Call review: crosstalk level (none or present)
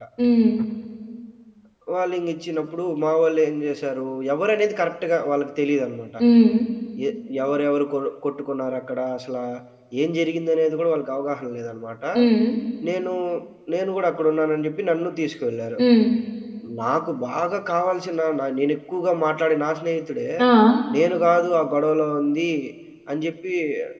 none